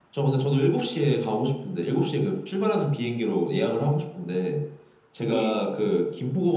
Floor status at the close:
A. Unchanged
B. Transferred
A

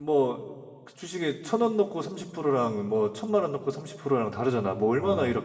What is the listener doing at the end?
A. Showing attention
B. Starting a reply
B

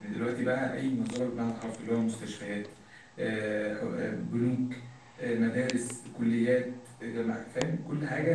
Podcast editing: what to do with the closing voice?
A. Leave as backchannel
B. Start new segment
A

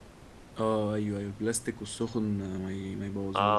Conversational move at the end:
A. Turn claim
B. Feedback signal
A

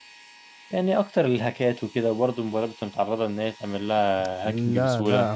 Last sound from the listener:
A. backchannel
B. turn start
B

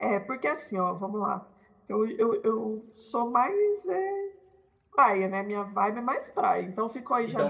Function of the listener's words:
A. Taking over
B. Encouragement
A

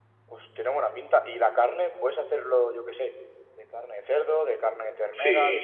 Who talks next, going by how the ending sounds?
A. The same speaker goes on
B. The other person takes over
B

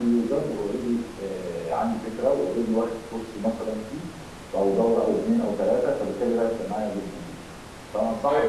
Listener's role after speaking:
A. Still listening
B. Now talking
B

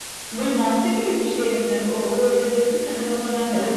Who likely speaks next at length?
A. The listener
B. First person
A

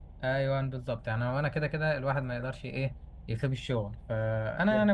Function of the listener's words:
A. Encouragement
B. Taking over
A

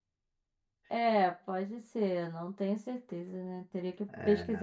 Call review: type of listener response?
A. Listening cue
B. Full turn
A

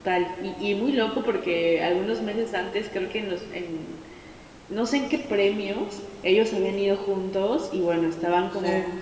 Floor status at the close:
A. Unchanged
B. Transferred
A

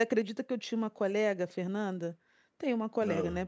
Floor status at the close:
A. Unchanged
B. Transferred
A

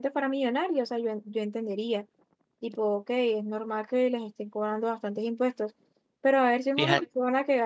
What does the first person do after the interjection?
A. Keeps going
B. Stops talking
A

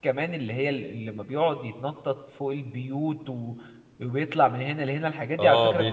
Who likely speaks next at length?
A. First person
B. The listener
B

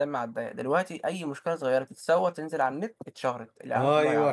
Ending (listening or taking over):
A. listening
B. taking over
B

